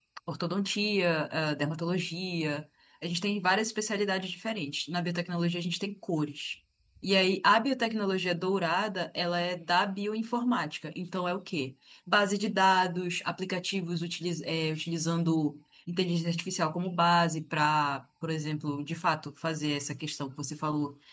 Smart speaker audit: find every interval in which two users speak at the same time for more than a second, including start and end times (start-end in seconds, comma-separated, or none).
none